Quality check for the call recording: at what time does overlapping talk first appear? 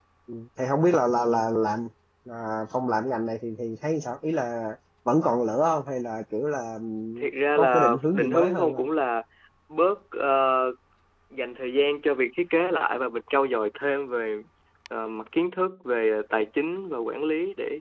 8 s

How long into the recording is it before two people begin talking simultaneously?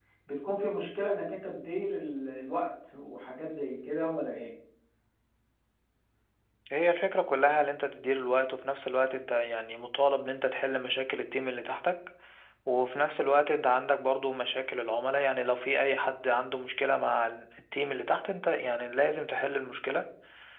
none

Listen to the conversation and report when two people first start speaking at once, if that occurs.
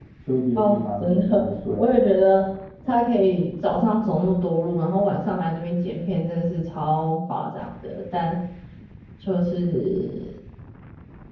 1 s

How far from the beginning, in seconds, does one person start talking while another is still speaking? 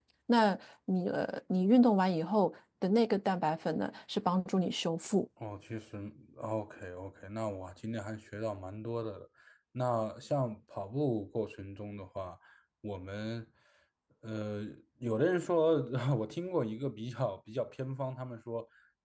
none

